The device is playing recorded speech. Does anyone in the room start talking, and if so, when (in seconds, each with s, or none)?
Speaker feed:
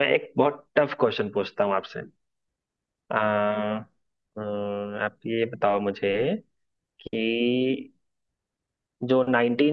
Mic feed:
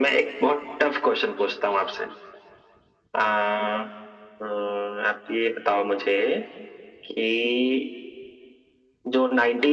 none